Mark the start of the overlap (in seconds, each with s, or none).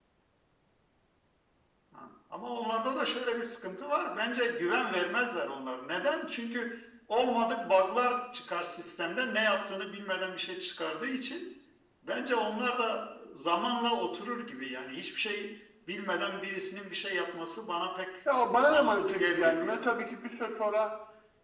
18.7 s